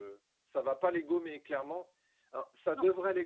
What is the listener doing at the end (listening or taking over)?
listening